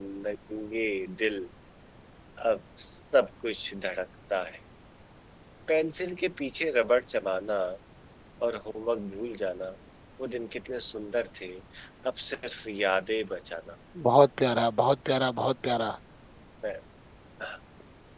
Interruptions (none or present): none